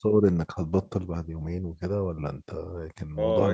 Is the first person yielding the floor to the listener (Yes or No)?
Yes